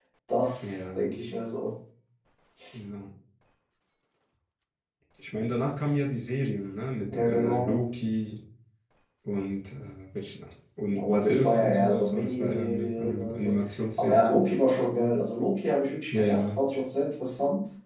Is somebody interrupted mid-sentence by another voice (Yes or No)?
Yes